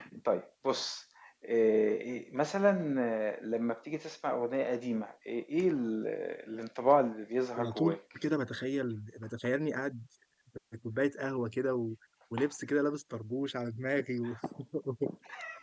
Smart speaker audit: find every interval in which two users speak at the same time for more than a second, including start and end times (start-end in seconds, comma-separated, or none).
none